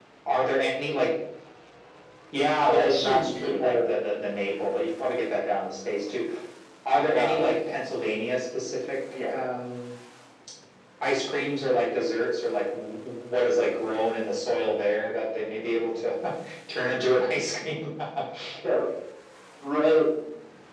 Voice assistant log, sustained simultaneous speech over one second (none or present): present